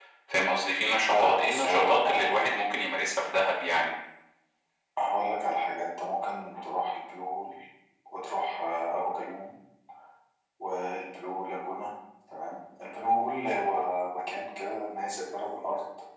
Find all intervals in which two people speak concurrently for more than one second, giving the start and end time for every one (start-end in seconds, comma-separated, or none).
1.1-2.6